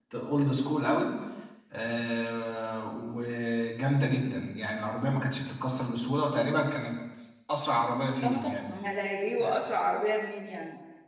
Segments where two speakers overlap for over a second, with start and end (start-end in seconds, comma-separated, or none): none